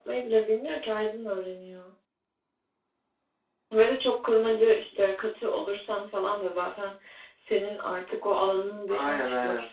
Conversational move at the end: taking over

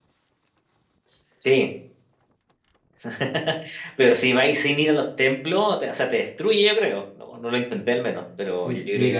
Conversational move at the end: taking over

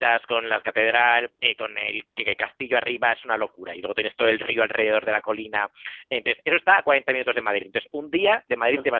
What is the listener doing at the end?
listening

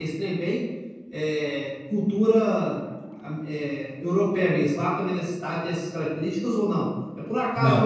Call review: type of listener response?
listening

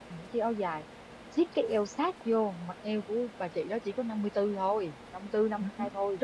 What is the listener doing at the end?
taking over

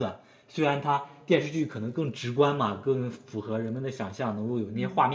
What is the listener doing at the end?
listening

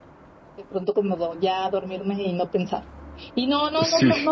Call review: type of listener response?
listening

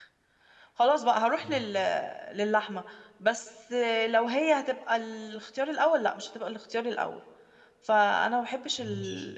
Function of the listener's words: listening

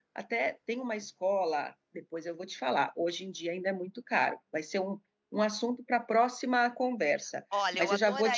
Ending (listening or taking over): taking over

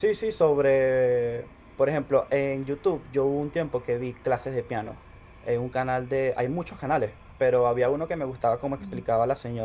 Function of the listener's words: listening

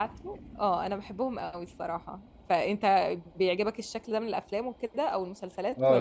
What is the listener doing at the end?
taking over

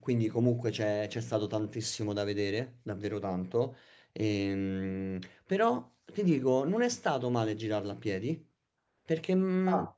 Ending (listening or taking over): listening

